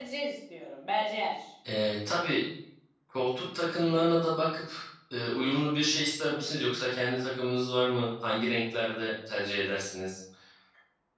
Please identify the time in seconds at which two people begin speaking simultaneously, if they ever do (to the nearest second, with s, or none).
none